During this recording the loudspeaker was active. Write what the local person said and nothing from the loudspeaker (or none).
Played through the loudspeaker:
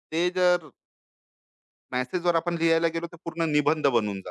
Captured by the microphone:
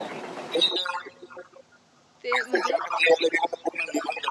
ते म्हणजे